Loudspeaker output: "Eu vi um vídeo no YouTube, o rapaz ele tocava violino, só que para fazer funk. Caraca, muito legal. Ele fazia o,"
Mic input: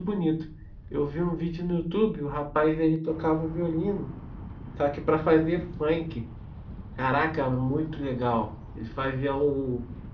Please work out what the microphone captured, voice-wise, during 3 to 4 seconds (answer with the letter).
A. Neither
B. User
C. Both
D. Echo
D